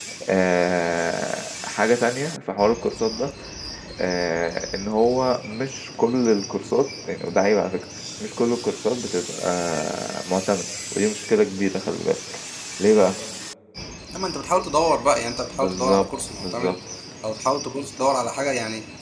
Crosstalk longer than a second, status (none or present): present